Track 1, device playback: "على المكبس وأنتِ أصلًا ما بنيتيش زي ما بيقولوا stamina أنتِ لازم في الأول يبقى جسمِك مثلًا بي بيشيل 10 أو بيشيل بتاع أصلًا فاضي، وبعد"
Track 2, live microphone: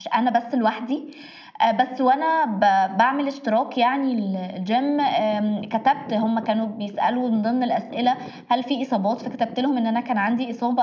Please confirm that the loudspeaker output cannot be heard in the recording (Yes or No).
Yes